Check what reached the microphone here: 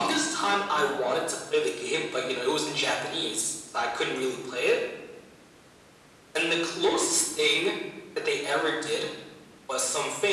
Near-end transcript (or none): none